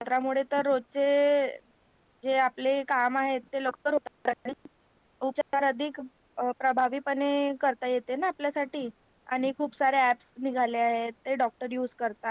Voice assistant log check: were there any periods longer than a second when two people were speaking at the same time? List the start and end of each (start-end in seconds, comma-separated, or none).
none